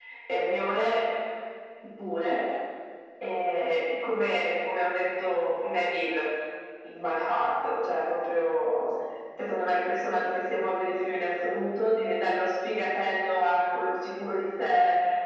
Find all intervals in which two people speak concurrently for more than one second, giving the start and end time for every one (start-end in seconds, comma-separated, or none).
none